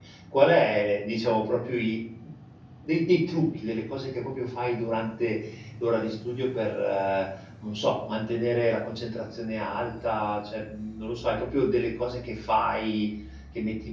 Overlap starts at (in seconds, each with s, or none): none